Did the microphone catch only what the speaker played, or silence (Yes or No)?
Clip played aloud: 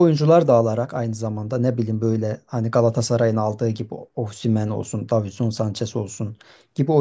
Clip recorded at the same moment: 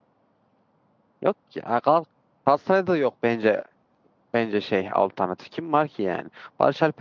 No